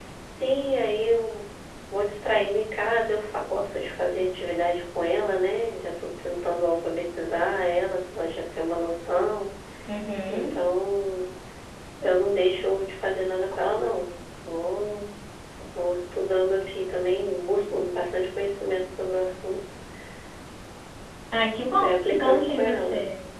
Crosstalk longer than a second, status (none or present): present